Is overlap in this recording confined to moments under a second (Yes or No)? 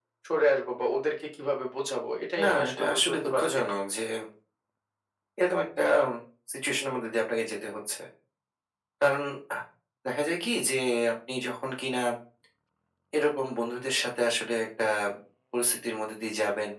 No